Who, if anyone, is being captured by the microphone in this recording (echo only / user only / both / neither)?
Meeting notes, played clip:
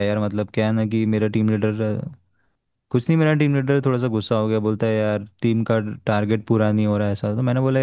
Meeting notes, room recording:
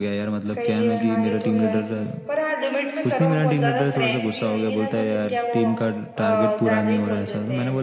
both